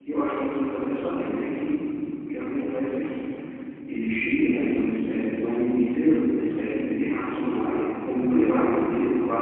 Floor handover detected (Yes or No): No